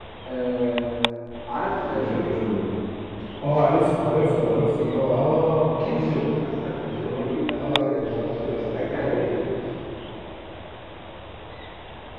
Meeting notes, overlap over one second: present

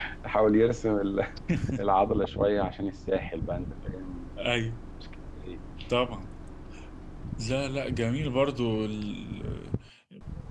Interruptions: none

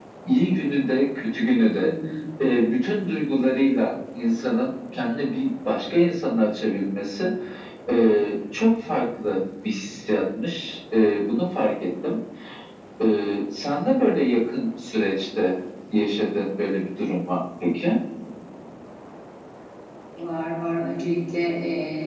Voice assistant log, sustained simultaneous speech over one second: none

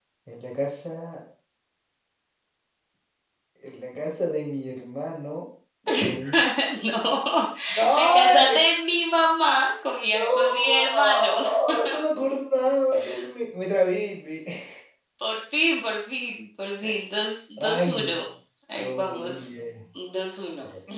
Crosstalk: present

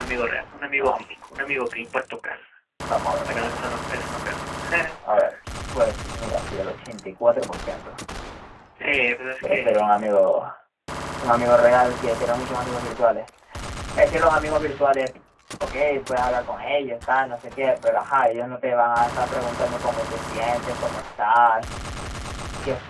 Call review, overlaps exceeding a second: none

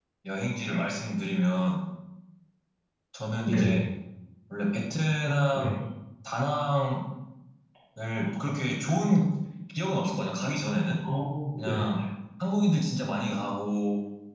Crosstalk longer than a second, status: none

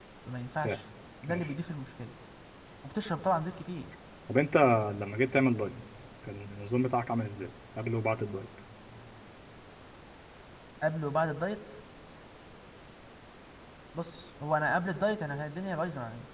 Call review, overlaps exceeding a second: none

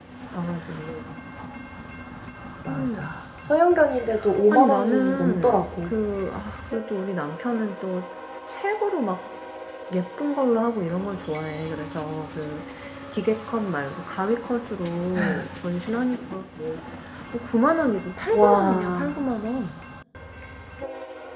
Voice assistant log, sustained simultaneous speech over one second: present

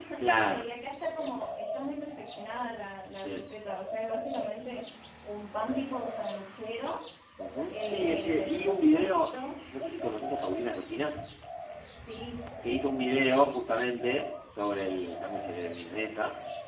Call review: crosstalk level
present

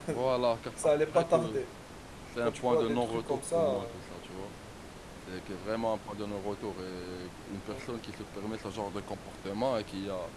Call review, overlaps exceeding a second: present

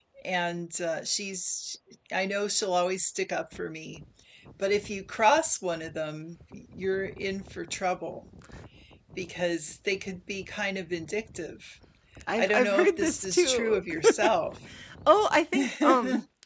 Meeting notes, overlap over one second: present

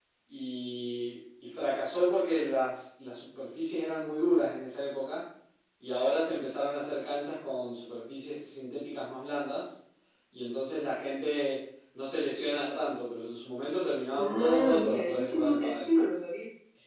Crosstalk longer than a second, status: present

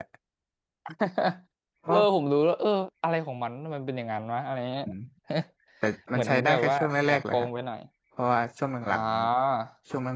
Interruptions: present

